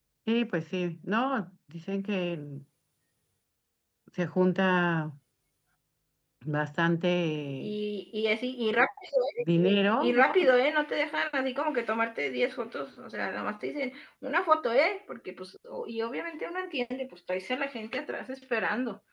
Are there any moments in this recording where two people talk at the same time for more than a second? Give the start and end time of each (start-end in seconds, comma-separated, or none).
none